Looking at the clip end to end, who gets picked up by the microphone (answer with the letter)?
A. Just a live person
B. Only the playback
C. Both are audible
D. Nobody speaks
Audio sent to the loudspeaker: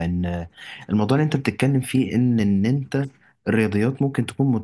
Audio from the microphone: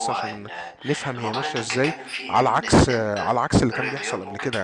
C